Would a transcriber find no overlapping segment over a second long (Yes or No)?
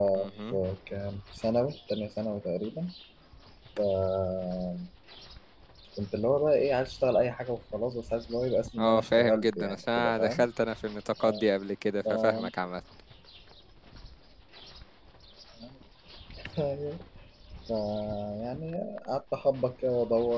No